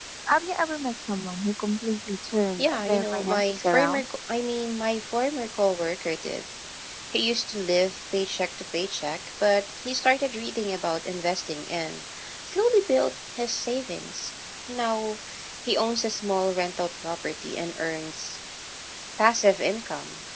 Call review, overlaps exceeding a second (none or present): present